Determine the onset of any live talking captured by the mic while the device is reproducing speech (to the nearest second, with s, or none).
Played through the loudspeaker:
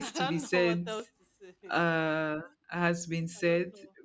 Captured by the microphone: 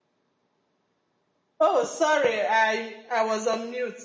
2 s